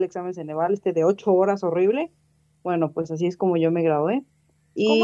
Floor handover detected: Yes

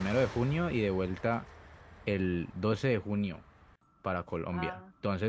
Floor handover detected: No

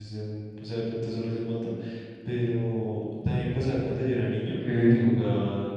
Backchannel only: Yes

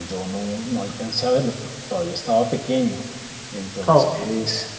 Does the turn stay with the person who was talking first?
Yes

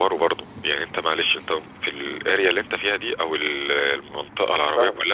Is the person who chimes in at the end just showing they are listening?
Yes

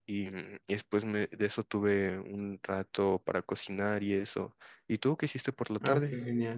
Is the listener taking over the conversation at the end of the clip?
Yes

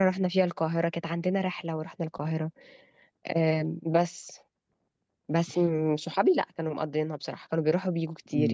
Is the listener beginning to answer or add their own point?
No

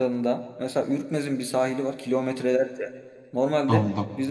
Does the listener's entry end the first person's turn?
No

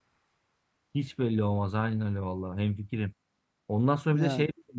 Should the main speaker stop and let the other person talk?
No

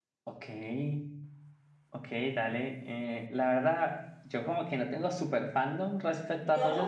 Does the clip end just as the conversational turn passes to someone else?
No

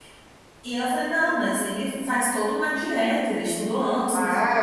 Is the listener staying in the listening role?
No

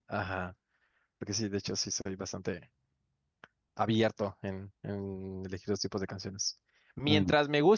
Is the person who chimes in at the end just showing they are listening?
Yes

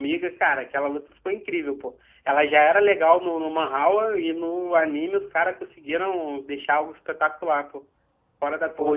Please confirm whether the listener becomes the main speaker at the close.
Yes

